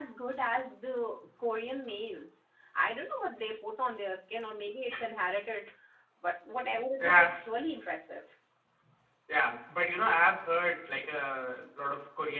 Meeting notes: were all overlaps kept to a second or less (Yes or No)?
Yes